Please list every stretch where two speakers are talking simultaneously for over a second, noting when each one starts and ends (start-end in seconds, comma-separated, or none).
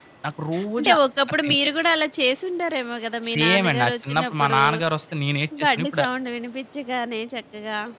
3.3-4.6